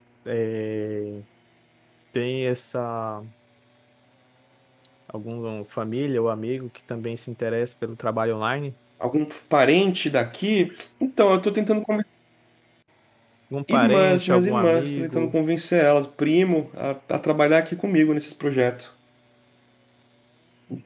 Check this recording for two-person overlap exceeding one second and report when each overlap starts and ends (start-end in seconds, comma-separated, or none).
13.7-15.3